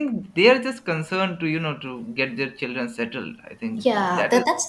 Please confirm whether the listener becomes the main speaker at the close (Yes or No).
Yes